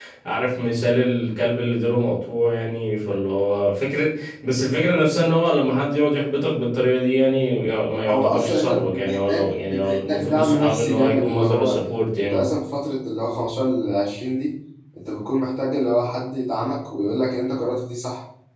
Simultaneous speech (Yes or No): Yes